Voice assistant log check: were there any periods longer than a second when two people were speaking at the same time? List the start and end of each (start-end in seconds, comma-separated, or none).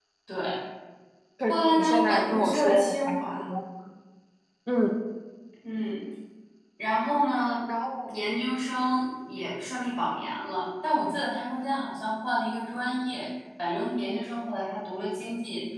1.5-3.5